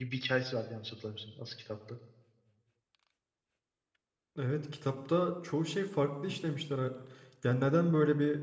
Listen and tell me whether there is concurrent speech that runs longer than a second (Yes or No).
No